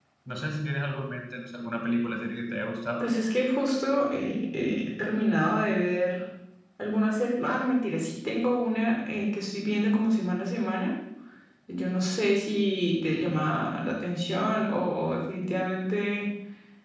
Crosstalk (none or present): none